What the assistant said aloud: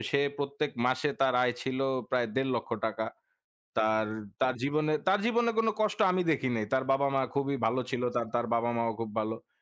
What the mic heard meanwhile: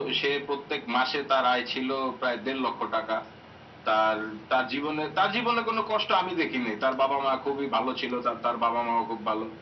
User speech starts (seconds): none

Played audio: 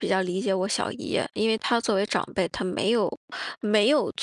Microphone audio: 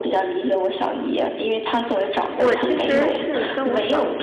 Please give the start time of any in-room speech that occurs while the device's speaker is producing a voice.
2.3 s

